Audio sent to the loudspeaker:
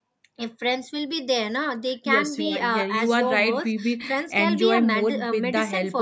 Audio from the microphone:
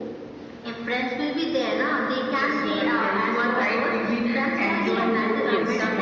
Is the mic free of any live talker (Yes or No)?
No